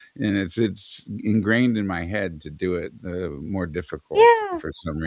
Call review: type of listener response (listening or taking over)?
taking over